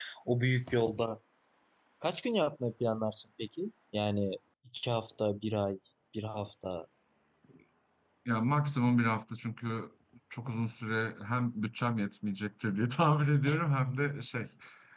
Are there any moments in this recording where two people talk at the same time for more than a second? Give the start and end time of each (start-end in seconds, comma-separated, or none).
none